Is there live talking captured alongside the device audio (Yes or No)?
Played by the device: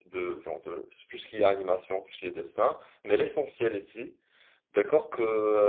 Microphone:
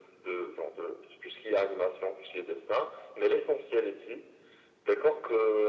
No